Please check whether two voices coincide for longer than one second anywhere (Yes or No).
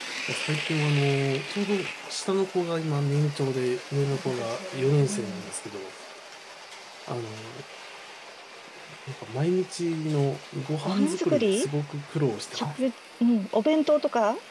Yes